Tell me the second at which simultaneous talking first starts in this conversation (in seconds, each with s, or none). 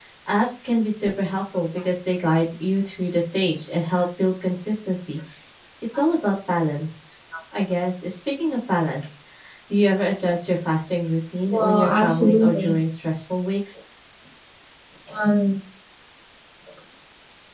11.5 s